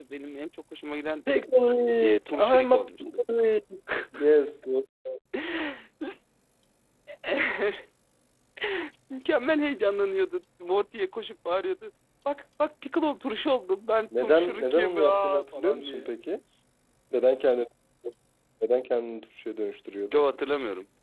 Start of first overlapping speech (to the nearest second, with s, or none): 2 s